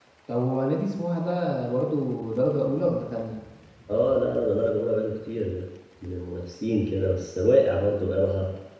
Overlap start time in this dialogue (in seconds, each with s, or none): none